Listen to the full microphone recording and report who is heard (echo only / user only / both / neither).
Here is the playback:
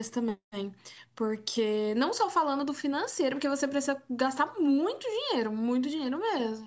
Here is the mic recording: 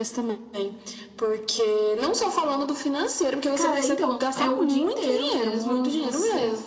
both